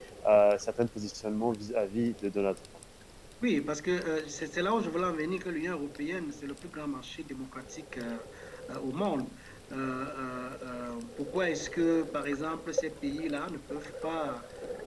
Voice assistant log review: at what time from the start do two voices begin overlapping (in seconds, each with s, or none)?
none